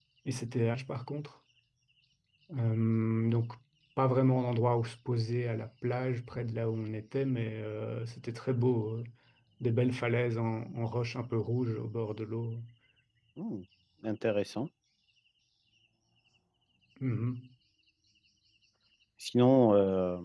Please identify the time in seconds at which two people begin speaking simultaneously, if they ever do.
none

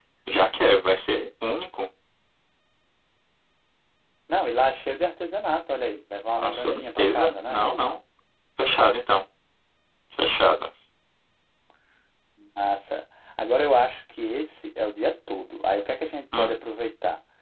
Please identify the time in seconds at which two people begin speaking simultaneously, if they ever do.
6.3 s

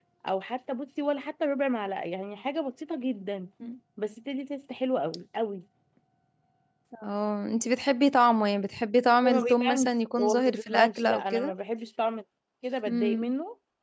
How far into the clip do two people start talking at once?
9.2 s

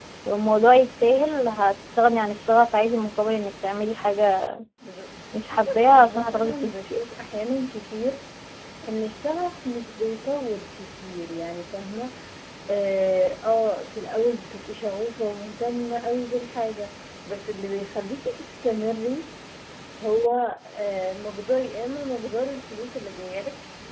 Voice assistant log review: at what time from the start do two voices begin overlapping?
5.5 s

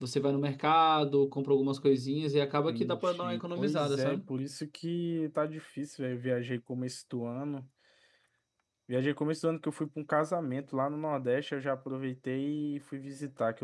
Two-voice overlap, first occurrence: 2.7 s

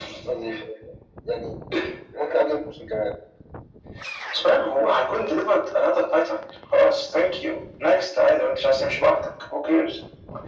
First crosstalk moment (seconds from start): none

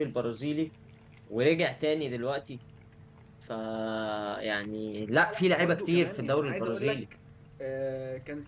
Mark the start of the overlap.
5.1 s

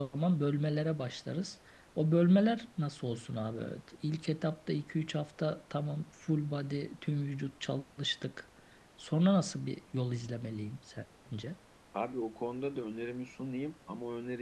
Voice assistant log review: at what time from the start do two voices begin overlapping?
none

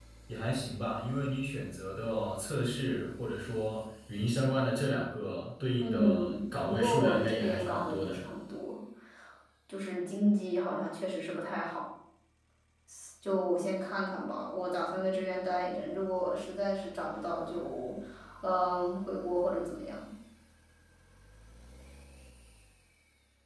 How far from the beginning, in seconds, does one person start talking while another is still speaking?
5.8 s

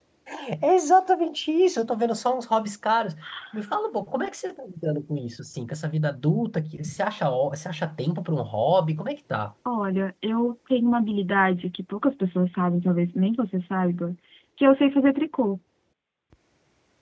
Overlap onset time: none

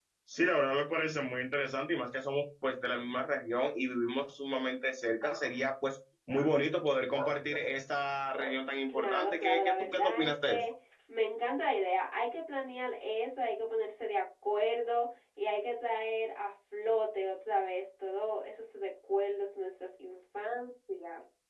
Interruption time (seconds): 8.9 s

